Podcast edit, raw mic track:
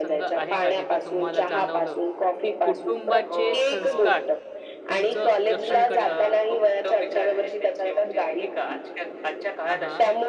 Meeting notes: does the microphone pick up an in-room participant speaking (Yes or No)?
Yes